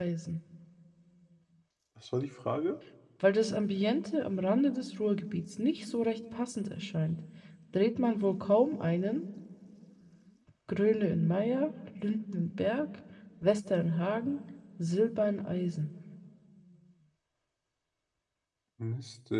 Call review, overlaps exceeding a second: none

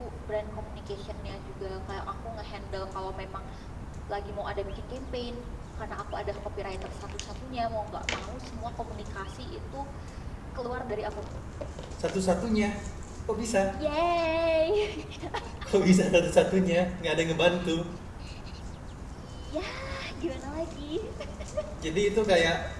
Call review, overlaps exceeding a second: none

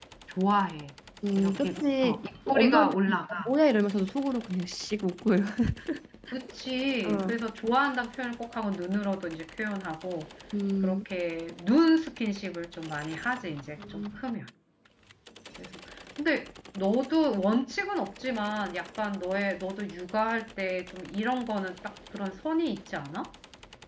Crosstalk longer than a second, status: present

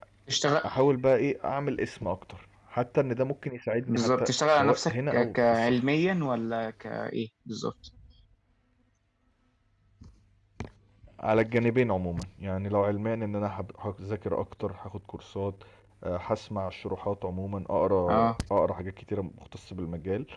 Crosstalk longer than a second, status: present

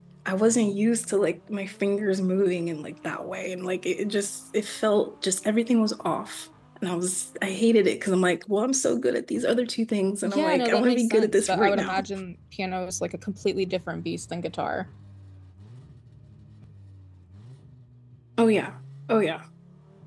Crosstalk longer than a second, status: present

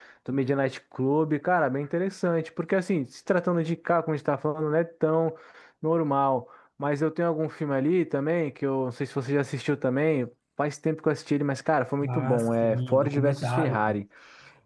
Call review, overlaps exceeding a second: present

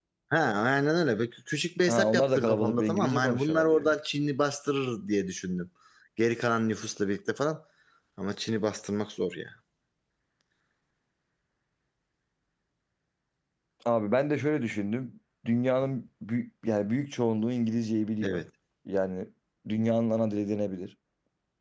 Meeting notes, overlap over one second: present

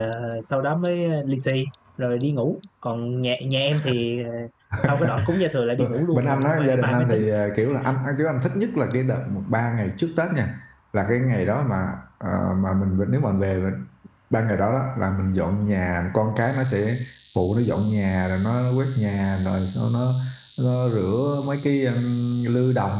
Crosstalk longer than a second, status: present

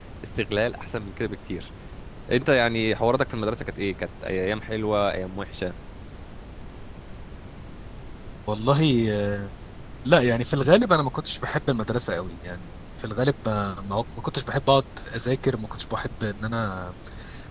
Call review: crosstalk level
none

